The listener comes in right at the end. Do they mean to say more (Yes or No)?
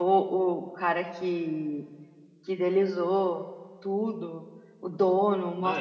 No